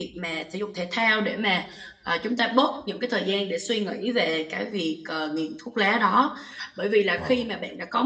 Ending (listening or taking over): listening